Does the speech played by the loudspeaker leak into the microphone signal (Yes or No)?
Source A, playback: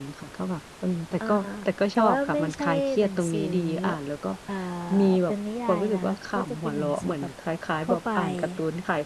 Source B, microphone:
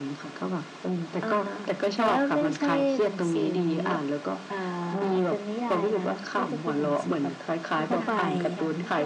Yes